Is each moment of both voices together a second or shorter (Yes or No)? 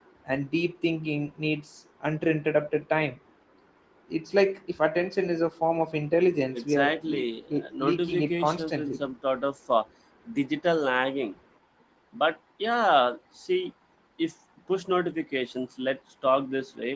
No